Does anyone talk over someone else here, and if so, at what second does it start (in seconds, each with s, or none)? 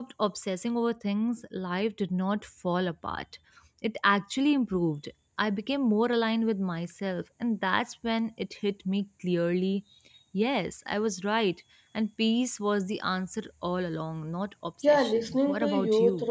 14.8 s